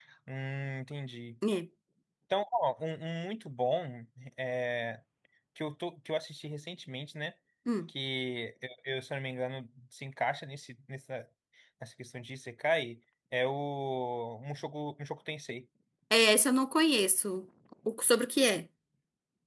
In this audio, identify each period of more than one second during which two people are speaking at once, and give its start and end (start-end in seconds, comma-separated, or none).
none